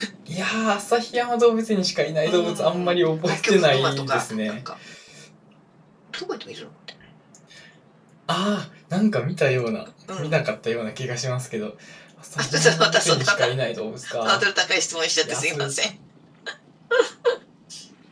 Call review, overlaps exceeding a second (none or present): present